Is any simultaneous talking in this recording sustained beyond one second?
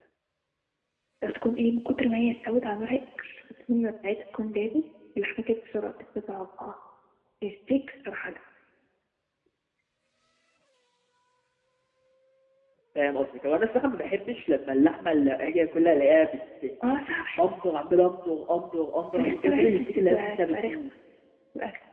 Yes, from 19.2 s

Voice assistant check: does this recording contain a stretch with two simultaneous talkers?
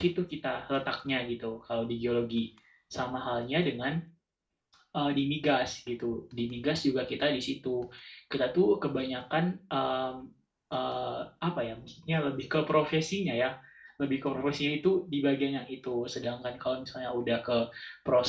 No

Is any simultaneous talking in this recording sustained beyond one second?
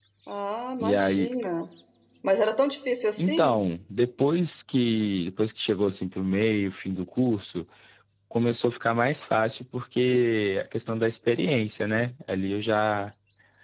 No

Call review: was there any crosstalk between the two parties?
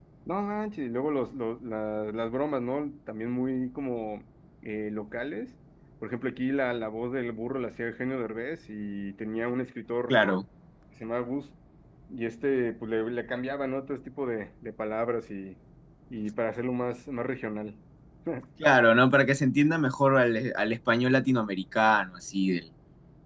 No

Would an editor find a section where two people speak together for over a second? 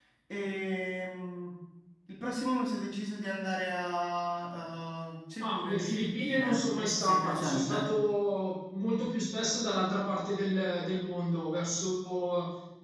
Yes, from 5.4 s

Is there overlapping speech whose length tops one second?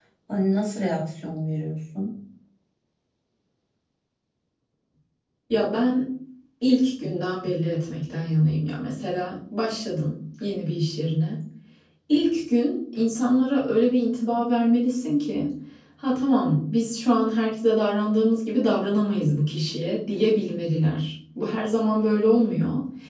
No

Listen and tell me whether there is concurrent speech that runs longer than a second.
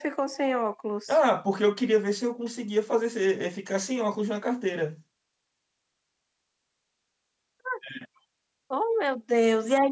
No

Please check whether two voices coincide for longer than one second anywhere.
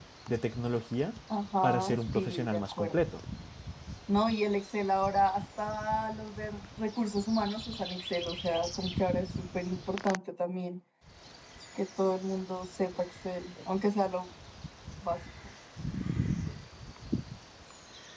Yes, from 1.6 s

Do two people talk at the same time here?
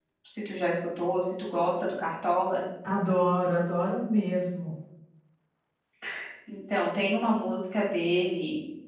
No

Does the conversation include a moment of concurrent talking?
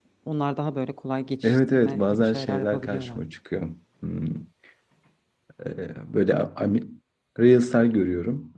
Yes, from 1.4 s

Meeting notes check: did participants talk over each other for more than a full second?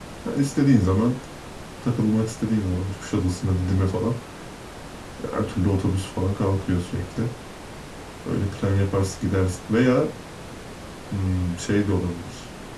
No

